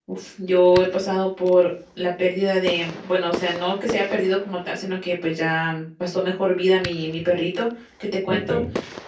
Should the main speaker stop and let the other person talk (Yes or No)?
No